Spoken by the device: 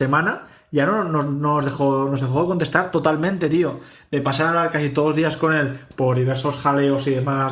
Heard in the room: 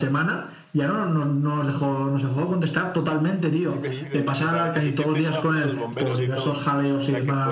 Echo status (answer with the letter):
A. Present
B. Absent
A